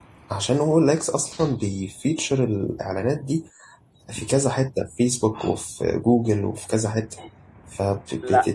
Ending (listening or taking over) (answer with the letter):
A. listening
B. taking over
A